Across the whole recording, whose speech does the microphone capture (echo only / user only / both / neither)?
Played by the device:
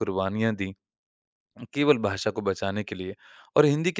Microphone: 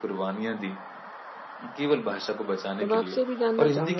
both